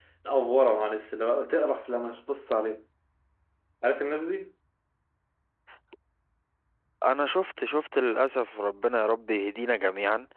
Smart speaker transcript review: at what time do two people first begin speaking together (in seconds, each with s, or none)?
none